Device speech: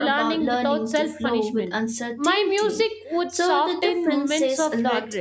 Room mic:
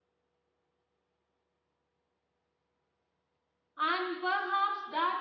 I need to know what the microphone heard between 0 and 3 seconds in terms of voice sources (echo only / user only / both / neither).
neither